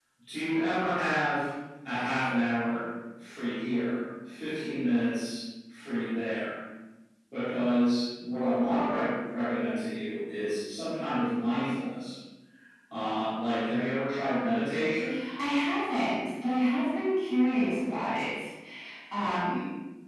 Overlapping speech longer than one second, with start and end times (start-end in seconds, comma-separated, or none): none